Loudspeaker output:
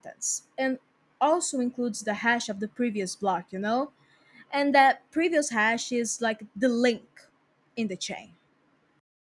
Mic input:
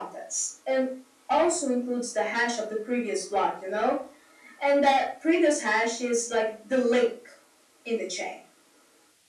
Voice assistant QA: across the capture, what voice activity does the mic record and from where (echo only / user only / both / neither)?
echo only